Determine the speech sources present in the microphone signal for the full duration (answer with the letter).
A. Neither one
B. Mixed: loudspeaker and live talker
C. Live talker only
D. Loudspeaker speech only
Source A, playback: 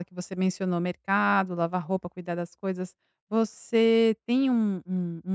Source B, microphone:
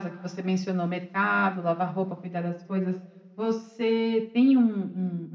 D